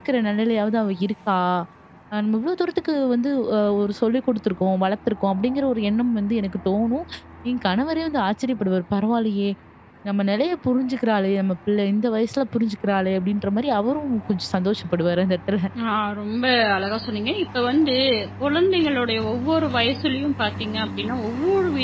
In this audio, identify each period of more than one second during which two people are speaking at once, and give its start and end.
none

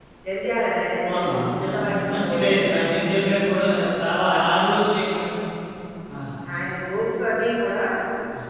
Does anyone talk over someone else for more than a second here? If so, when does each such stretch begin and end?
1.1-3.0

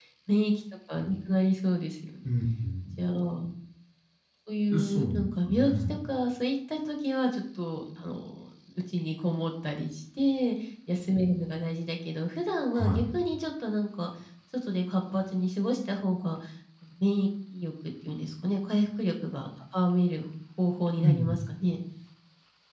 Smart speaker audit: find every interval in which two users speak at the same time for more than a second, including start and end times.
4.8-6.0

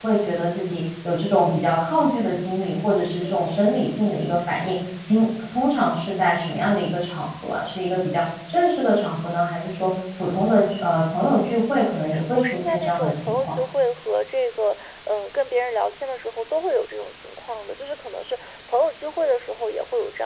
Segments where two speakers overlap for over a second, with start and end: 11.9-13.5

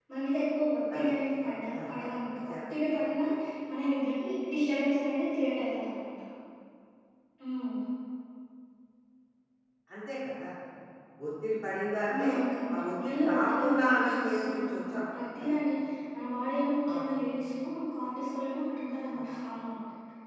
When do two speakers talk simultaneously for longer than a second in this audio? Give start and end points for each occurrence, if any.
12.9-14.7

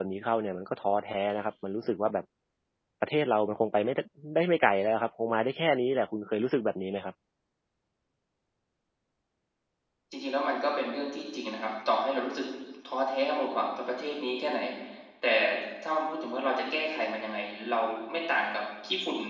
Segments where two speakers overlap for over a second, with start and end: none

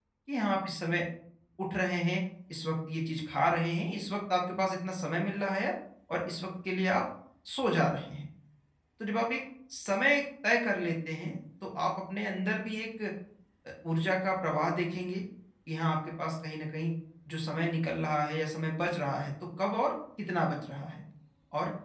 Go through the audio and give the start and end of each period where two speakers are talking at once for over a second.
none

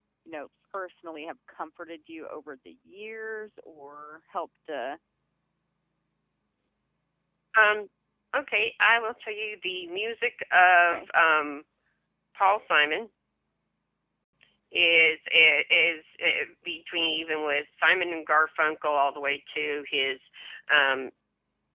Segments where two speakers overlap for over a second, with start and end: none

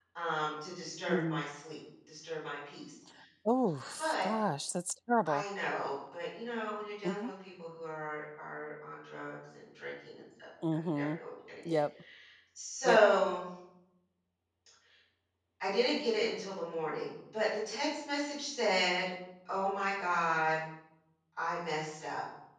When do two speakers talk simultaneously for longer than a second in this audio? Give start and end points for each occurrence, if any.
none

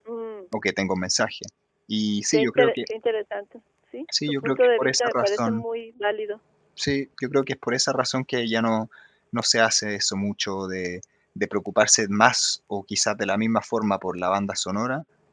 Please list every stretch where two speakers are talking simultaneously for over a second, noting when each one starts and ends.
4.3-5.6

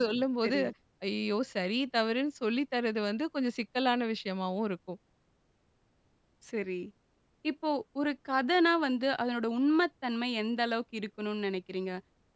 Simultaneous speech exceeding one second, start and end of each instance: none

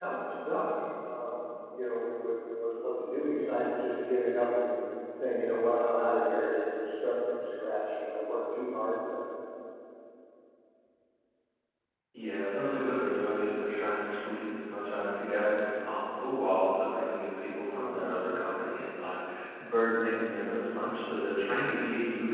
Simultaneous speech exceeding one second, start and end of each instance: none

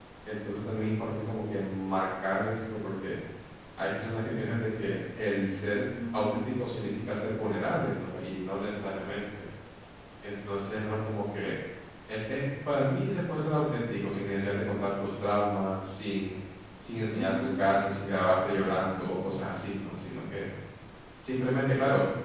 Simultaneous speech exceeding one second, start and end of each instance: 6.1-8.1

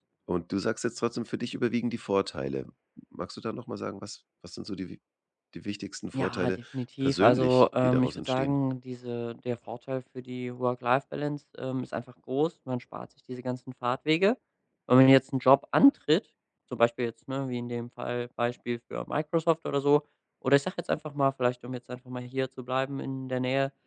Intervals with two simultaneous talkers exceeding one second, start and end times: 7.0-8.6

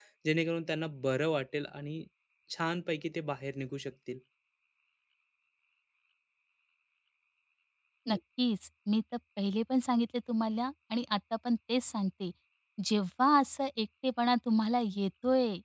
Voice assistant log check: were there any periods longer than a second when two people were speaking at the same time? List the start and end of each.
none

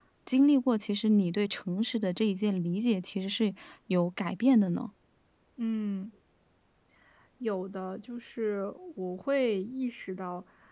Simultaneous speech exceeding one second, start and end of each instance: none

